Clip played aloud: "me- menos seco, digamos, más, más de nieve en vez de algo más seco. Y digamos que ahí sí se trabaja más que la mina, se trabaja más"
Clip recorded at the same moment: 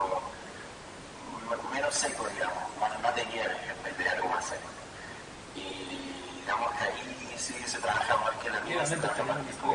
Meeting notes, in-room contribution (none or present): present